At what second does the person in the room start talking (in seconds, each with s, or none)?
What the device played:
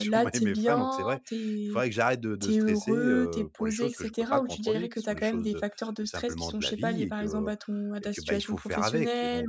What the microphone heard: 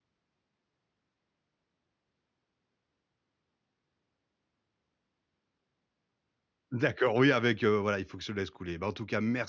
6.7 s